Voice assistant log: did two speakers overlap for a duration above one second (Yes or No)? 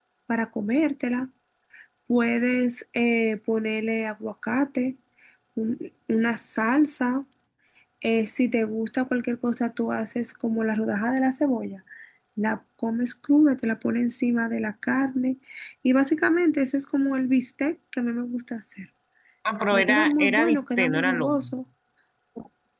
Yes